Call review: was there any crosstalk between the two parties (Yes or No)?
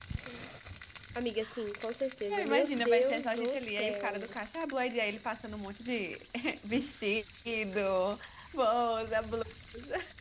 Yes